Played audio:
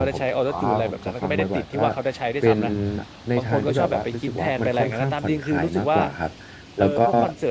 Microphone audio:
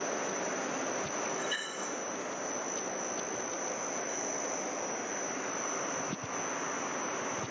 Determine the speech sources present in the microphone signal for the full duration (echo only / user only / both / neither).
neither